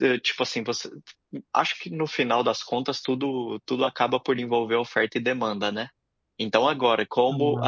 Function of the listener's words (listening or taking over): listening